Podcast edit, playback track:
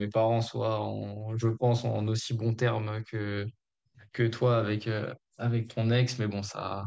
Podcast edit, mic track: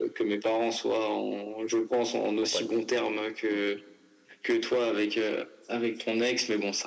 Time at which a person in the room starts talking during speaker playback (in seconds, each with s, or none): 2.4 s